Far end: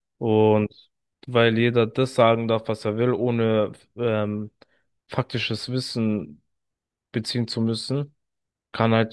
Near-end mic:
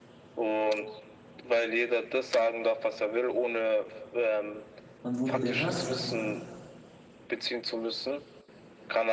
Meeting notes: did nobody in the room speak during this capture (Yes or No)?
No